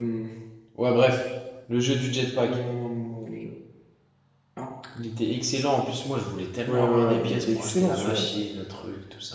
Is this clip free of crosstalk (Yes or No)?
No